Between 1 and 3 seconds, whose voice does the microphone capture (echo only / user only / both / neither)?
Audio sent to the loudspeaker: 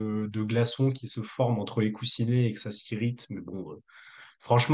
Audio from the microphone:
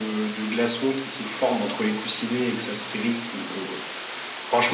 echo only